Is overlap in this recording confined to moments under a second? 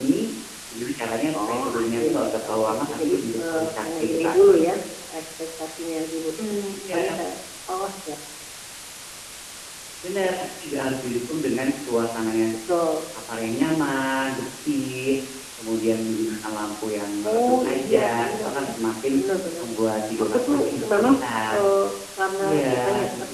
No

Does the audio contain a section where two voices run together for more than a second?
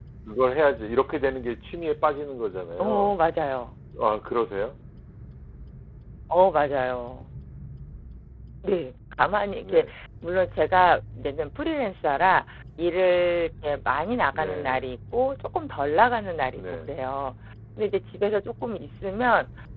No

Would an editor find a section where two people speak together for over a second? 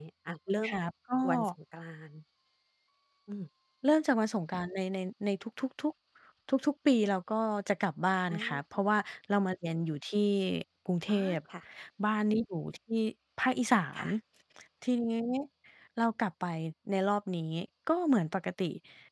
No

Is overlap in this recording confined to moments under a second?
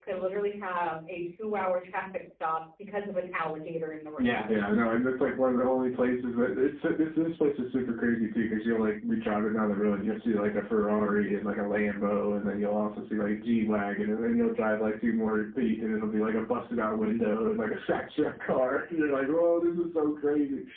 Yes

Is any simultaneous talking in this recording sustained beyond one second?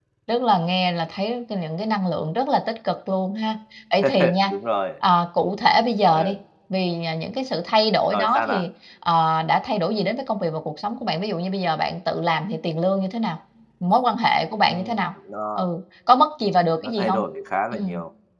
No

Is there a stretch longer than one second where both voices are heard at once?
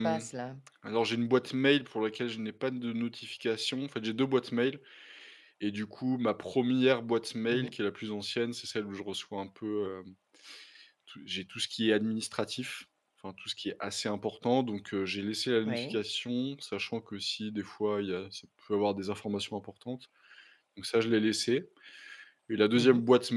No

